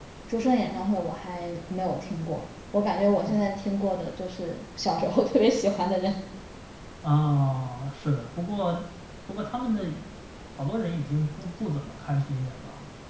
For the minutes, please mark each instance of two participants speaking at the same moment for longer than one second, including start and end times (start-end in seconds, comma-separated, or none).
none